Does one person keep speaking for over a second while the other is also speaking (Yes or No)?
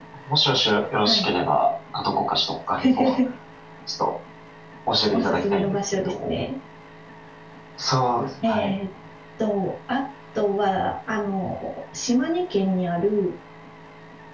Yes